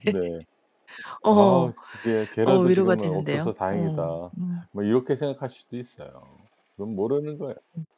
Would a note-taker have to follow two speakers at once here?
Yes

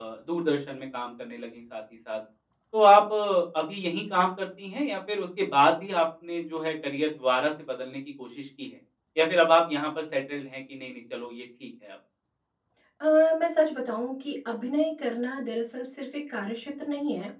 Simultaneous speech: No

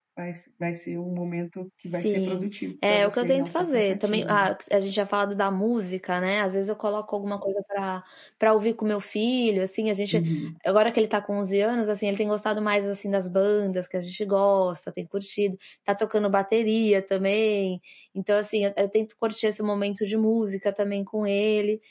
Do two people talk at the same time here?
Yes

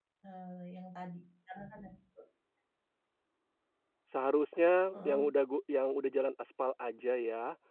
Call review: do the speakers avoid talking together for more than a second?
Yes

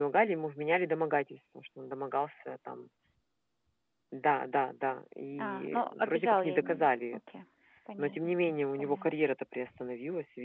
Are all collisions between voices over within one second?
No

